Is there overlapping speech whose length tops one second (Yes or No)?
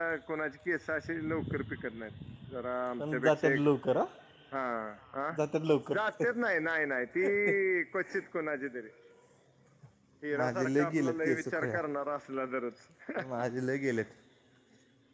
Yes